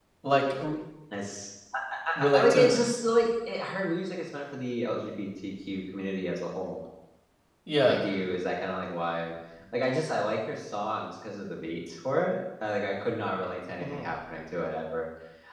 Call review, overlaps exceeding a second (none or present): none